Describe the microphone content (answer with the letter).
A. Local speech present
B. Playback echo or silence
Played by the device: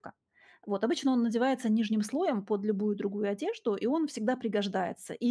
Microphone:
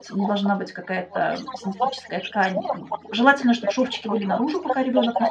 A